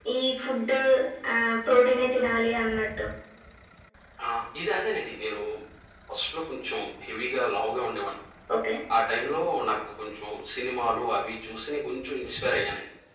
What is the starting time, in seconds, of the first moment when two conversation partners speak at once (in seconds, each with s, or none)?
none